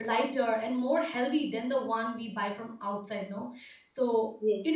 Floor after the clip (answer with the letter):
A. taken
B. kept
B